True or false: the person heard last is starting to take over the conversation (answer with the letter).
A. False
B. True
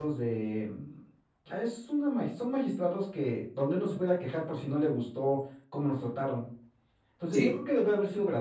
A